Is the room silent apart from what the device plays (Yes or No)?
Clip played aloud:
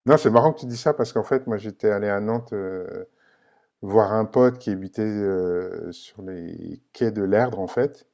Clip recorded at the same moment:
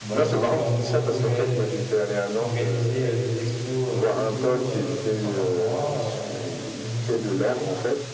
No